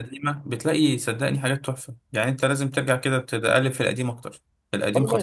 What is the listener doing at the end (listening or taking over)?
taking over